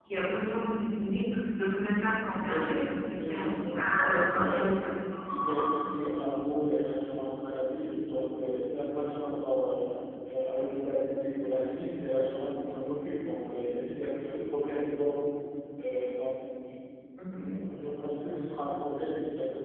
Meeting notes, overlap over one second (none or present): present